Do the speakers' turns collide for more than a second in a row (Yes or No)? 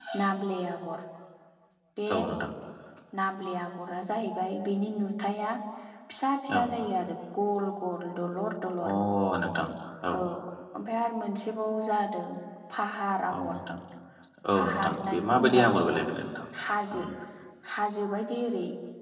Yes